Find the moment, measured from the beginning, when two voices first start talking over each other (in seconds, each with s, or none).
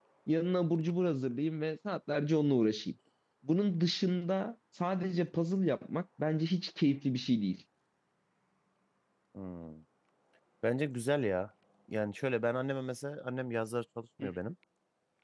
none